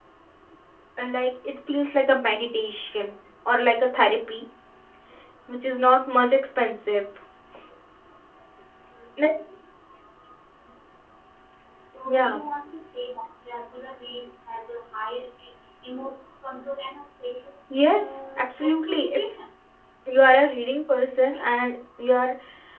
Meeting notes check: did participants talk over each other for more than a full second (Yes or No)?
Yes